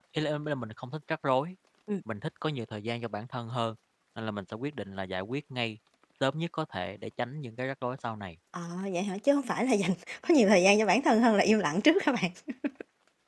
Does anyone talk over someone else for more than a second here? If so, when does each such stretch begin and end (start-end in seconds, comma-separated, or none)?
none